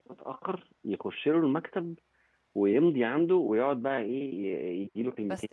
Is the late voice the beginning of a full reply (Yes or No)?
No